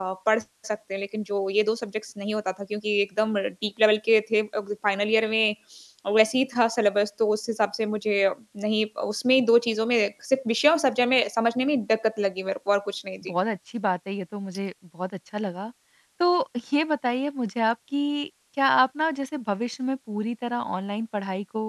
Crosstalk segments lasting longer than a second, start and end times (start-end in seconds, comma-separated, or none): none